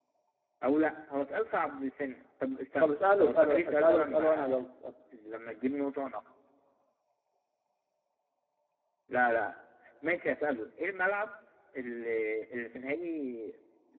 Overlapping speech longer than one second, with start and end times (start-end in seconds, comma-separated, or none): 2.8-4.6